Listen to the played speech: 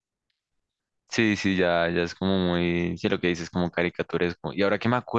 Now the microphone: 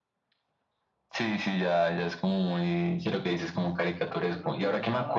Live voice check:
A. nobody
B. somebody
B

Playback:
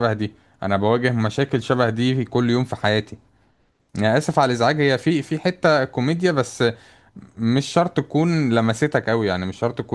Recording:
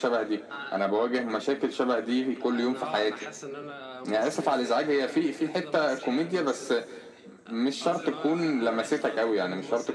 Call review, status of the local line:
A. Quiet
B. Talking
B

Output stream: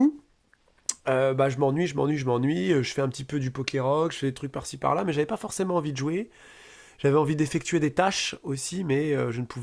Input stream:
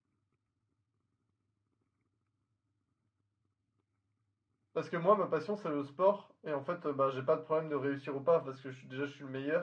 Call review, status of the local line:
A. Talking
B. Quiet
A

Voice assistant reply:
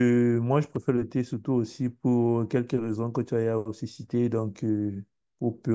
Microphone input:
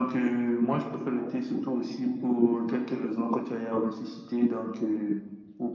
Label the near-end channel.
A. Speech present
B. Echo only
B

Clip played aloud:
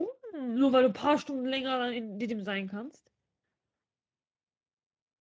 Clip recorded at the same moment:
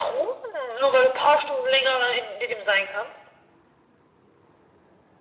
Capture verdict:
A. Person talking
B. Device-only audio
B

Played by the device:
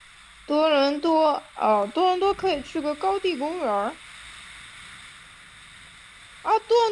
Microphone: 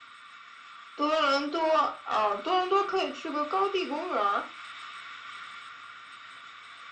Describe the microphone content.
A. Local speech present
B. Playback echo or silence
B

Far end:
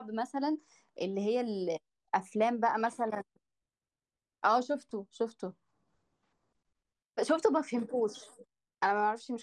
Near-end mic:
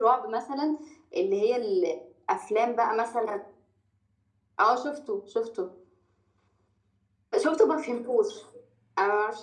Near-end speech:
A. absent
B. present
A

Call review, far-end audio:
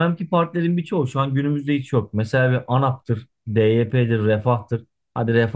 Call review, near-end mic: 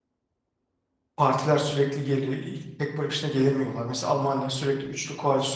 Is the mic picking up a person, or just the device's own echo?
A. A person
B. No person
A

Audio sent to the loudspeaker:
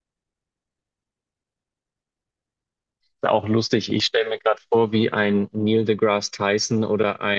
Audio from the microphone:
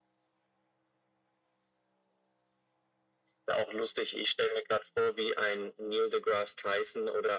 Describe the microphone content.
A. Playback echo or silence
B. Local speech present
A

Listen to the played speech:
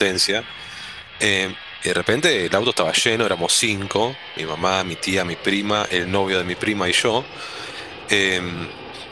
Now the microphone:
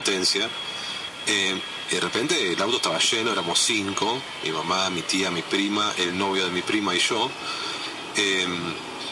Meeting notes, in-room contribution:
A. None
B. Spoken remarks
A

